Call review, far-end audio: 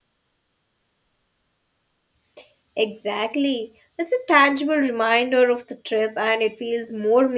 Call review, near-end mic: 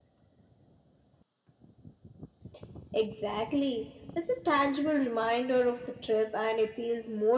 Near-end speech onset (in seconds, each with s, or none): none